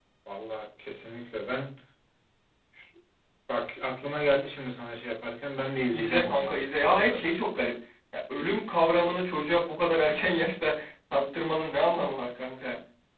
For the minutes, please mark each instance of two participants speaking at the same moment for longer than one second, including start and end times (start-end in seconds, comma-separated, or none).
5.9-7.3